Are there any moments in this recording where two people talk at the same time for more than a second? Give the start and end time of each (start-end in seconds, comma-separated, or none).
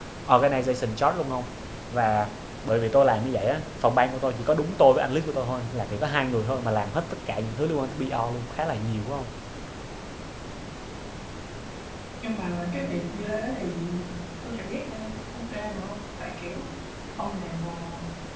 none